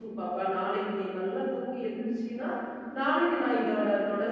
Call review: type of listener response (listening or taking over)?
listening